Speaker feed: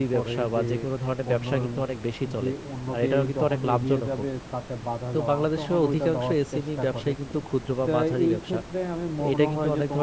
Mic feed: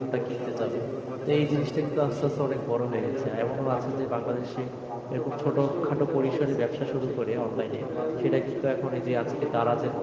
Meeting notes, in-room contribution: present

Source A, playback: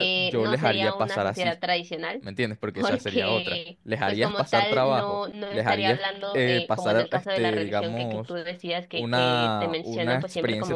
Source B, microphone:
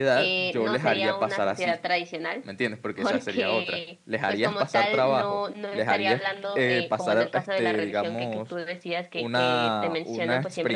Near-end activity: none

